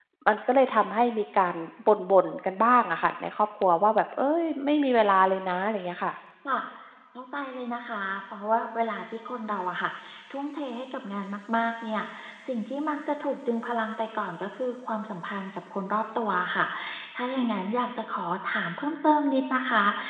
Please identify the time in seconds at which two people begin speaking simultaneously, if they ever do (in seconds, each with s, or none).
none